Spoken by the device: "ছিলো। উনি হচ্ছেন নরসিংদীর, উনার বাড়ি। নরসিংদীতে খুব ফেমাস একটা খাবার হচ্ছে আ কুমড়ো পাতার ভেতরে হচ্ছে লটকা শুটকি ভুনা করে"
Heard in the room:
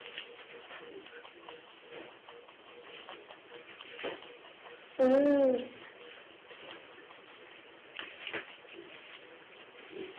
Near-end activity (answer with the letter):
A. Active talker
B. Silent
A